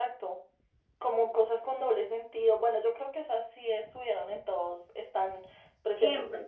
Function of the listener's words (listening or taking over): listening